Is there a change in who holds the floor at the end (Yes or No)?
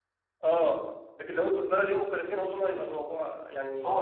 Yes